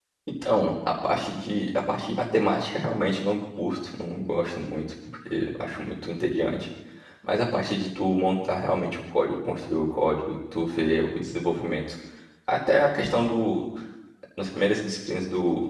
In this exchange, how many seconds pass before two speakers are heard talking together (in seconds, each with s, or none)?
none